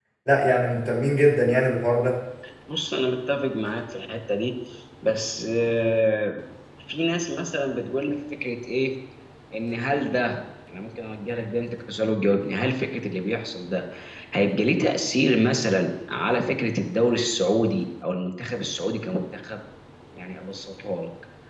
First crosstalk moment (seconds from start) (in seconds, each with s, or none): none